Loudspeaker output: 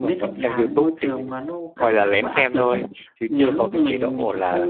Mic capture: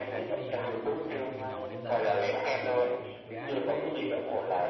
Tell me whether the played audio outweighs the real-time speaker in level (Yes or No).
Yes